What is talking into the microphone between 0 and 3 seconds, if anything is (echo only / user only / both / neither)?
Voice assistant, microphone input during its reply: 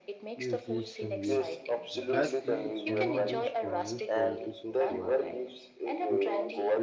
both